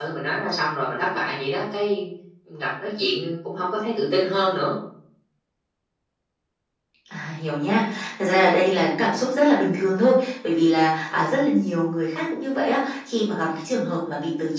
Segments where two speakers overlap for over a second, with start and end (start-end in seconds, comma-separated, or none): none